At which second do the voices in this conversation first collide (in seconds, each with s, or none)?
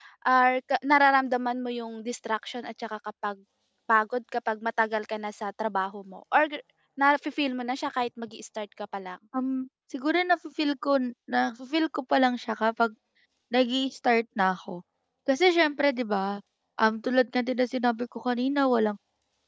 none